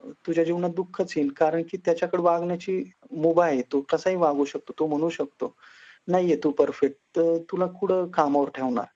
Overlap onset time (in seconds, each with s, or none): none